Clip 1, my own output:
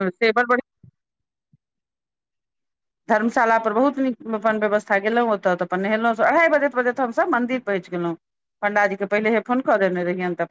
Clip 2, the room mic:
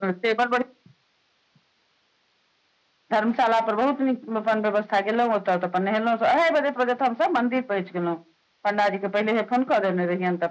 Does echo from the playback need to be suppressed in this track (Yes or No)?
Yes